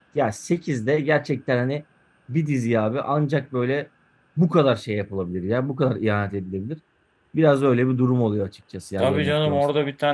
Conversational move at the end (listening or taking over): taking over